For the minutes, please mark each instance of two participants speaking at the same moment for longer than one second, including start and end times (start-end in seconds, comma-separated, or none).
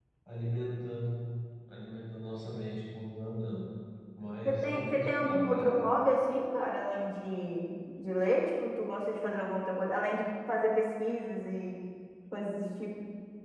4.4-5.8